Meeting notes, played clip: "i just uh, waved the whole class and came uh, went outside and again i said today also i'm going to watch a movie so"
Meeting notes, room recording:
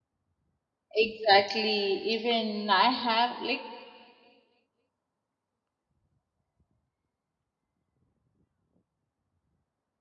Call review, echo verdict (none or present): none